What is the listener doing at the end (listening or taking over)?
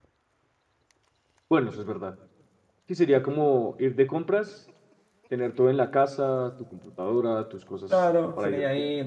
taking over